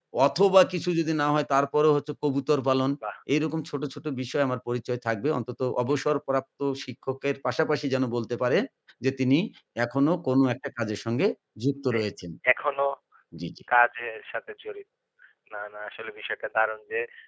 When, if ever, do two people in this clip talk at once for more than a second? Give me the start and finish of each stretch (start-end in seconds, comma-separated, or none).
none